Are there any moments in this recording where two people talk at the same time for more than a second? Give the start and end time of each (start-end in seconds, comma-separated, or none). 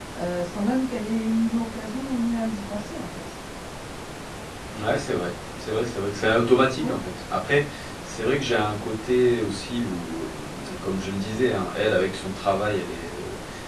none